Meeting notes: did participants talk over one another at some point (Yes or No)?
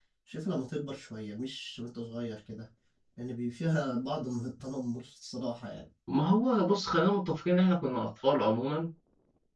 No